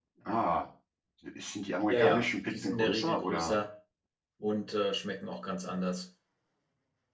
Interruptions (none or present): present